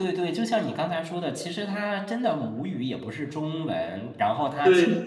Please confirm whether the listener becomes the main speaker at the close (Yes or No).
No